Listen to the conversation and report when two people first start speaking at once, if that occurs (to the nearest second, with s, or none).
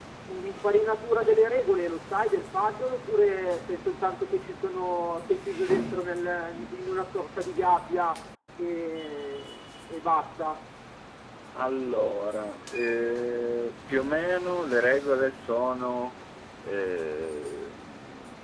none